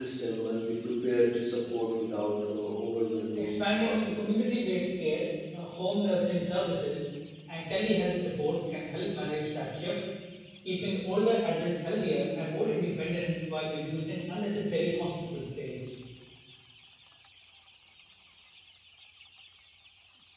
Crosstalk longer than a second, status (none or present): present